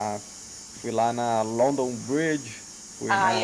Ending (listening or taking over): taking over